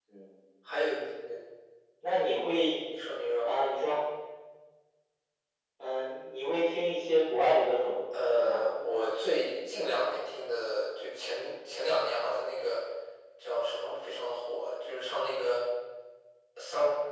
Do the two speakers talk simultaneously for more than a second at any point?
No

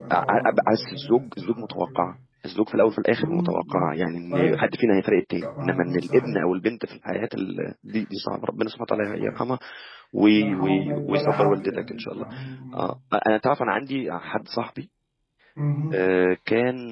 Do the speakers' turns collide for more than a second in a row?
Yes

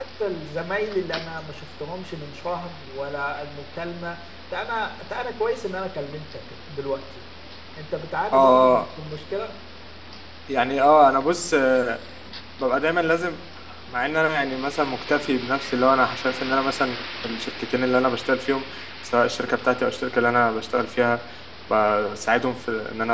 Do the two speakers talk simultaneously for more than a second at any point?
No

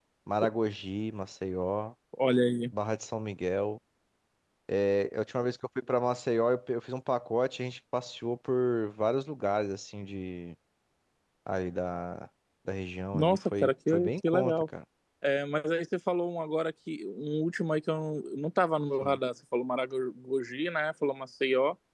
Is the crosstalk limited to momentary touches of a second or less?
No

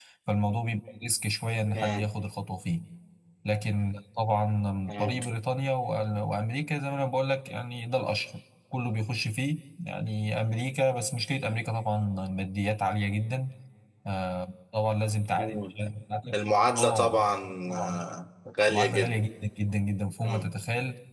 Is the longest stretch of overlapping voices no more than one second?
Yes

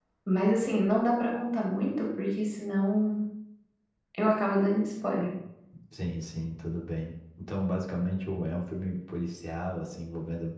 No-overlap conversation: Yes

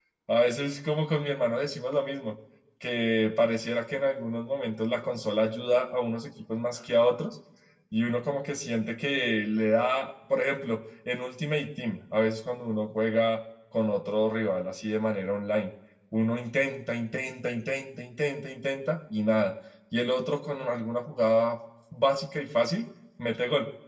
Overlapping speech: No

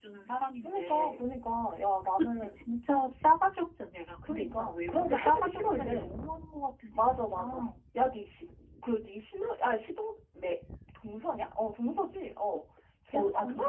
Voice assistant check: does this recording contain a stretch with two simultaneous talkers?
Yes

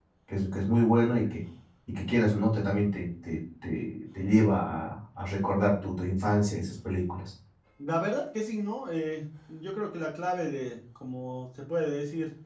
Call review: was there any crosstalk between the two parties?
No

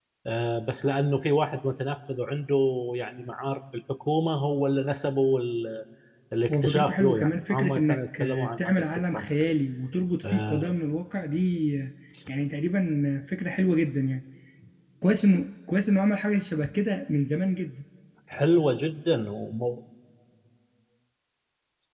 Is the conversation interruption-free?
No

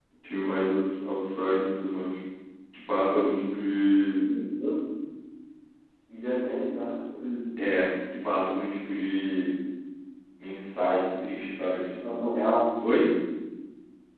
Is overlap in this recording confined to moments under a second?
Yes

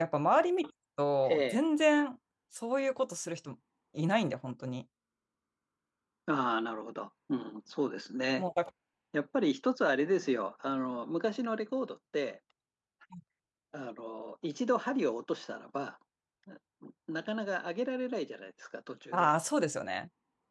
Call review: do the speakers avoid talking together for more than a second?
Yes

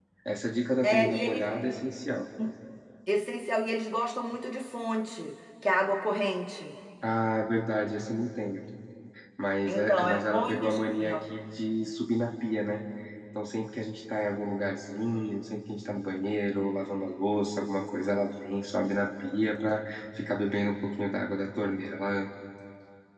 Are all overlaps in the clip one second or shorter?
No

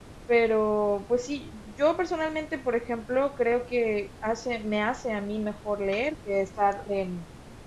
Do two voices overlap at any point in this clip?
No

